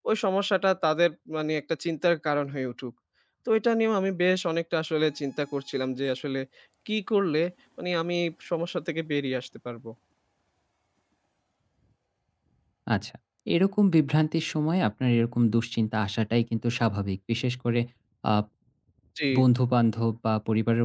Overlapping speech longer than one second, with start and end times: none

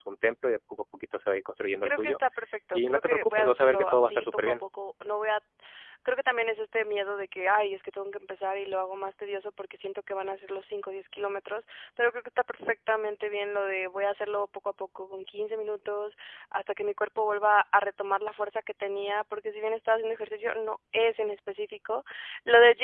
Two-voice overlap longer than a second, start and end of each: 2.7-4.5

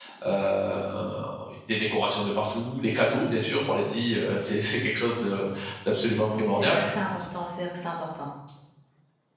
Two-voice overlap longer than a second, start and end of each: none

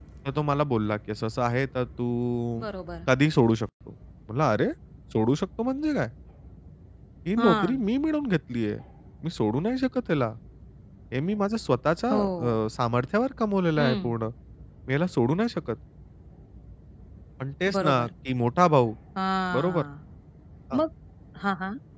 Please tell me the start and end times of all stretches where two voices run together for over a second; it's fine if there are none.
none

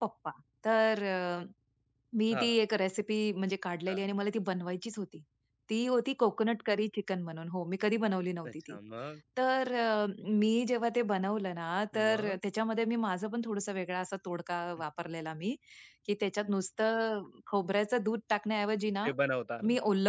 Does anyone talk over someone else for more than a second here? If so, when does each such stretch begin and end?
none

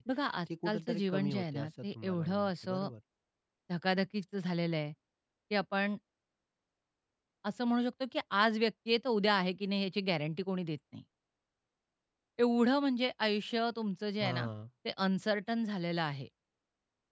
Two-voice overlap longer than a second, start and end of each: 0.7-2.9

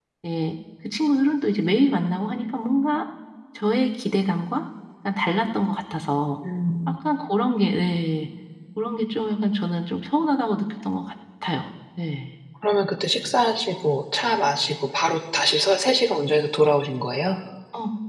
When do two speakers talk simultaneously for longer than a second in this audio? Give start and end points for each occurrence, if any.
none

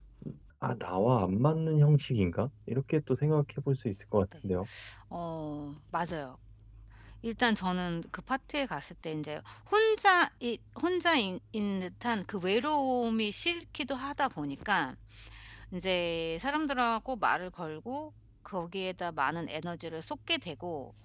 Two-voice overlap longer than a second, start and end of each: none

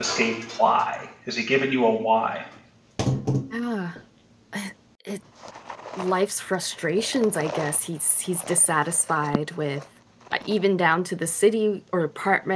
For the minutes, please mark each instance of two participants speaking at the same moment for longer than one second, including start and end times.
none

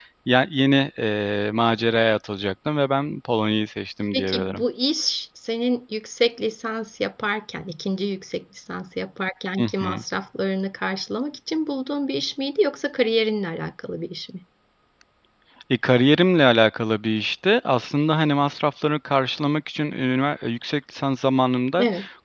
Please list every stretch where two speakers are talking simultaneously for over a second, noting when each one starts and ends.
none

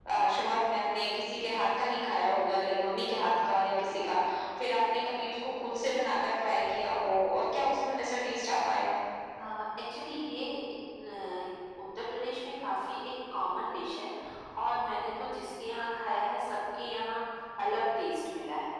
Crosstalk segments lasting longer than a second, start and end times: none

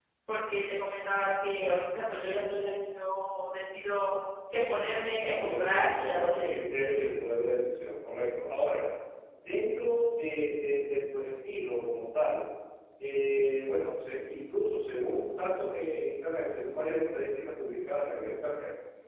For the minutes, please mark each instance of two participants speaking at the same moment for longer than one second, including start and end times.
5.2-6.6

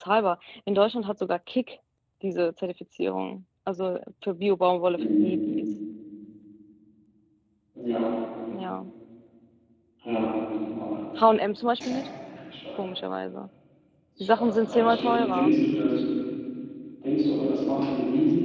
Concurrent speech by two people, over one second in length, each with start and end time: 14.3-15.6

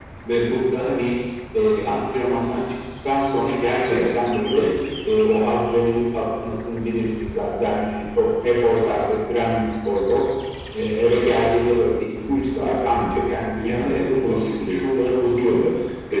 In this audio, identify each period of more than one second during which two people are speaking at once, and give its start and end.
13.6-15.7

